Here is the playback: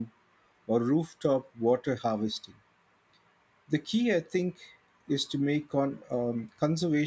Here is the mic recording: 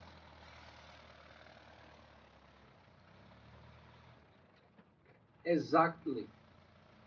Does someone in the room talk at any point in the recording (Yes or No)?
Yes